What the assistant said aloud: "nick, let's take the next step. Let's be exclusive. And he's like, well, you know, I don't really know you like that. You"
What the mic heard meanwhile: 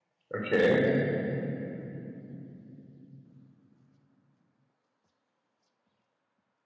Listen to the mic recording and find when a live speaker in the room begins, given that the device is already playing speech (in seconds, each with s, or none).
0.3 s